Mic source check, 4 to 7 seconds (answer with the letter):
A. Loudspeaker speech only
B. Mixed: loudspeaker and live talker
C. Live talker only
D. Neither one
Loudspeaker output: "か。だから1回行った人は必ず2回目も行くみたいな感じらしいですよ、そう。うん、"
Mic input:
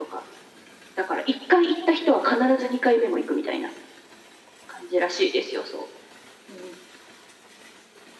A